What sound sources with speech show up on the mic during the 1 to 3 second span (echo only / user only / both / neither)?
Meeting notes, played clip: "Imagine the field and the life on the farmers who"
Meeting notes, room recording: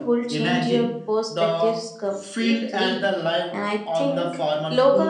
both